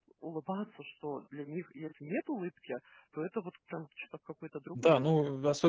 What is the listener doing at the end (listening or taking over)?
taking over